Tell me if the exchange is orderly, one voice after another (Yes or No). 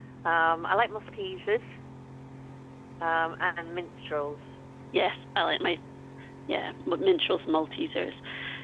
Yes